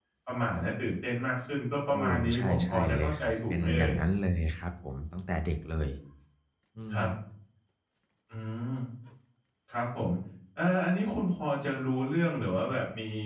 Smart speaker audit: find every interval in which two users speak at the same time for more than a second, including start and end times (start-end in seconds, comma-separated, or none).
1.9-3.9